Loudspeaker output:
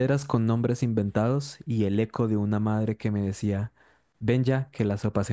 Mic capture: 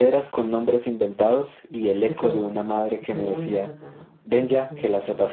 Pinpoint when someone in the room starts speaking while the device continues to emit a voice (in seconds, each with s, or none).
2.0 s